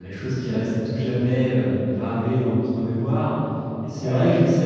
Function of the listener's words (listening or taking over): listening